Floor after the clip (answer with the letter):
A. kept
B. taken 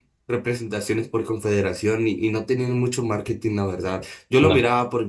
A